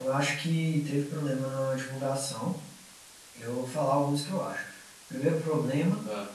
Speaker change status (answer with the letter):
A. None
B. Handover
A